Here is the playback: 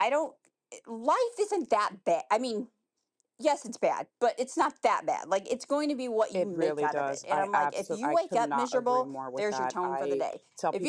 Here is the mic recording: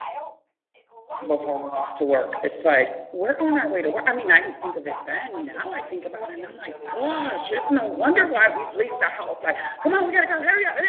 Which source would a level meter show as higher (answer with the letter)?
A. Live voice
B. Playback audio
A